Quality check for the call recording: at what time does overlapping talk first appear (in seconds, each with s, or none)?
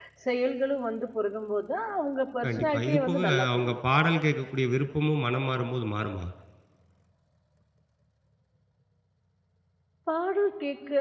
2.4 s